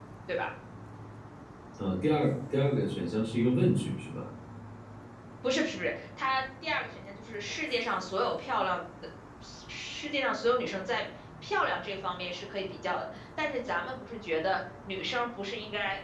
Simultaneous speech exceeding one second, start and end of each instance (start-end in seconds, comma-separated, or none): none